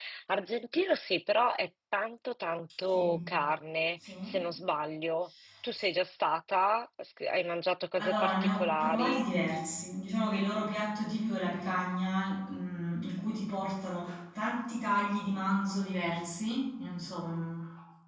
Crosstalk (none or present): present